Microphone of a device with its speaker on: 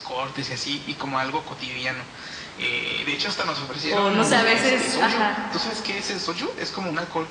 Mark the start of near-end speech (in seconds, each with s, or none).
3.9 s